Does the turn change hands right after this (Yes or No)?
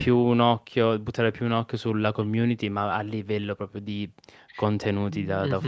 Yes